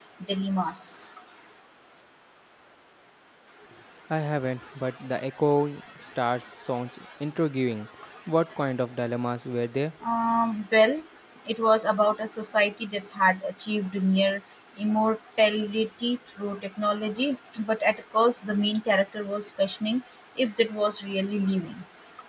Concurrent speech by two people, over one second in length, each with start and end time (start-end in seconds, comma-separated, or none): none